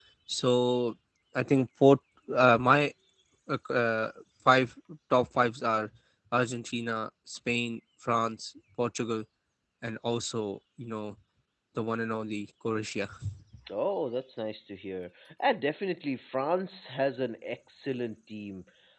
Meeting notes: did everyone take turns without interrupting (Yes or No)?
Yes